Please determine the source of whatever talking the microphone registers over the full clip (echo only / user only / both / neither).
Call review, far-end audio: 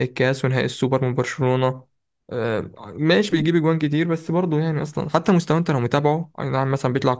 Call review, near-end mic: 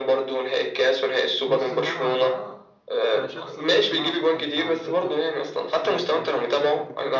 both